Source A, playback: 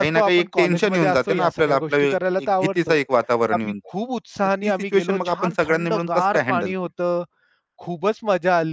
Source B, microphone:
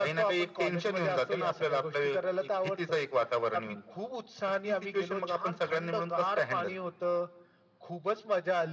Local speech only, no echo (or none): none